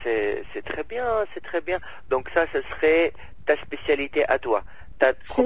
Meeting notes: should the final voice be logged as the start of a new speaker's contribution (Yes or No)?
No